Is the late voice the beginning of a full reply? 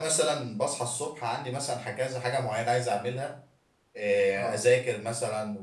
No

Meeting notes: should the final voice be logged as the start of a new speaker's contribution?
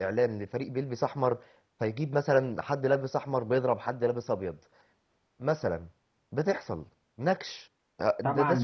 Yes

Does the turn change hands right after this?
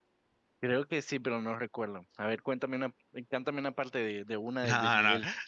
Yes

